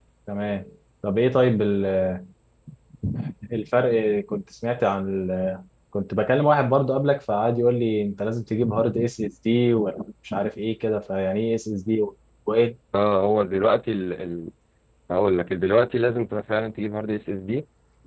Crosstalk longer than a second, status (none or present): none